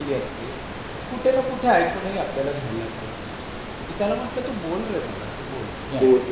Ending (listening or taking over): taking over